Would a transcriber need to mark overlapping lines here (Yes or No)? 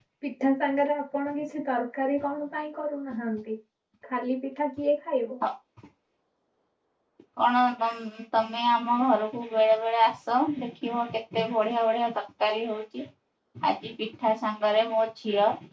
No